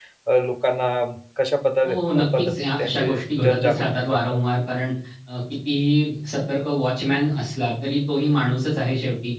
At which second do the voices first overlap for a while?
1.8 s

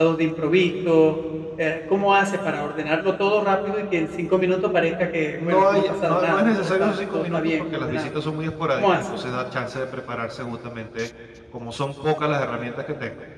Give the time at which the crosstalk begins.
5.5 s

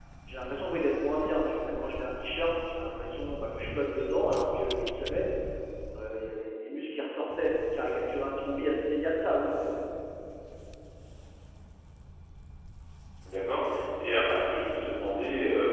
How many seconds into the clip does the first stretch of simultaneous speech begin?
none

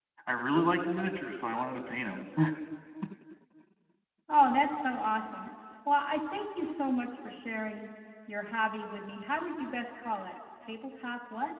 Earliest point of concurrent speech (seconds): none

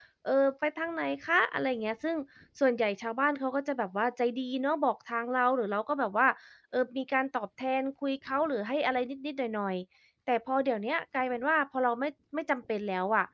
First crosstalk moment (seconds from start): none

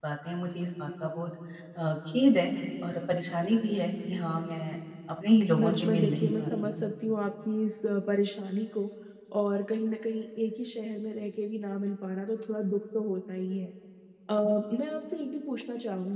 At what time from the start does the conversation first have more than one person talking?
5.6 s

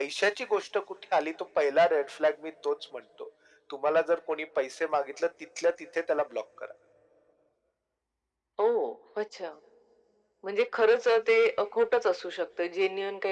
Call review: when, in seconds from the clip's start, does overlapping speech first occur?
none

